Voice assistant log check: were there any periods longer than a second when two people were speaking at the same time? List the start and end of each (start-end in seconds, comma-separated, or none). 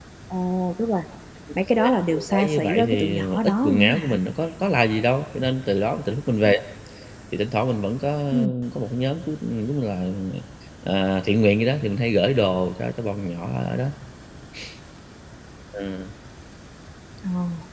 1.8-4.2